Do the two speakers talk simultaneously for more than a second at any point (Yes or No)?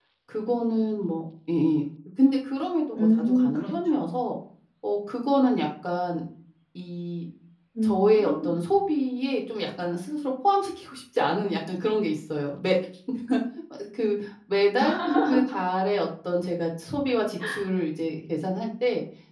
Yes